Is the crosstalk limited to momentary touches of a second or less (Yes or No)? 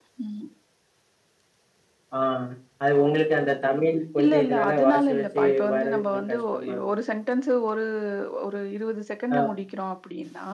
No